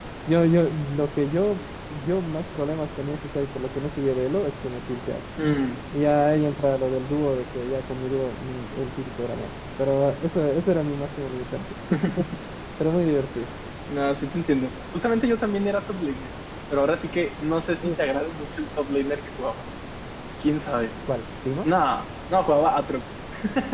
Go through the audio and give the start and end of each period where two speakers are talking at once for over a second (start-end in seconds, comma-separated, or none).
none